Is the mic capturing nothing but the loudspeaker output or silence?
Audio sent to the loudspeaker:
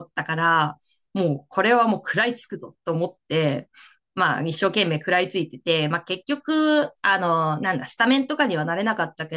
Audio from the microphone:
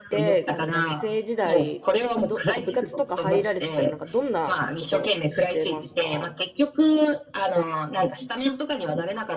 No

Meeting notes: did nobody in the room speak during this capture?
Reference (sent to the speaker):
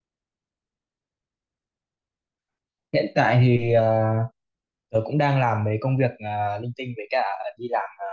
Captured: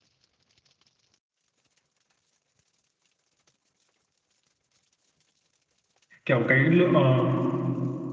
No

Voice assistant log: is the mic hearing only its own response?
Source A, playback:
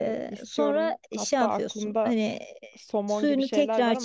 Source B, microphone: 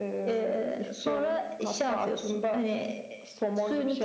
Yes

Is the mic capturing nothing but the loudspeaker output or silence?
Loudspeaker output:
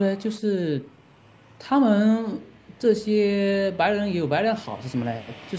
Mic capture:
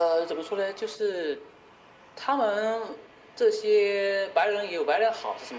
Yes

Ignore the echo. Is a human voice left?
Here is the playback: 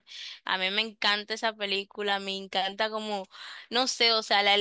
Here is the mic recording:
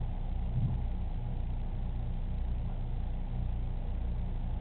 No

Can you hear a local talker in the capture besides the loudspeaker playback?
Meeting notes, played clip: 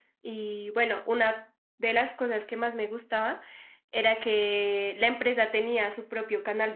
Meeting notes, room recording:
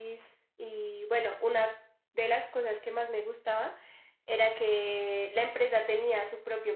No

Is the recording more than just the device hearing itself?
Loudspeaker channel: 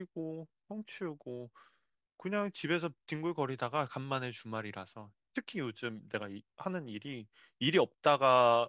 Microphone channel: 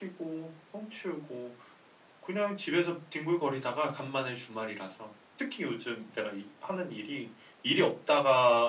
No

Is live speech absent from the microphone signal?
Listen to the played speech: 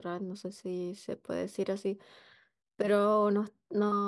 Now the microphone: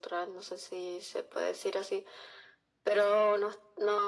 Yes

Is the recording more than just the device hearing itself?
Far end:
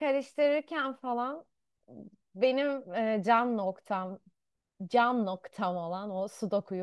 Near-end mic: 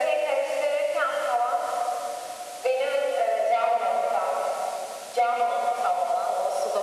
No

